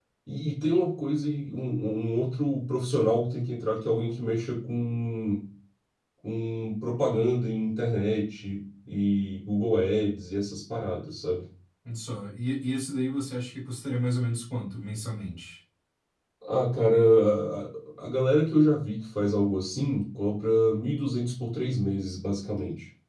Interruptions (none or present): none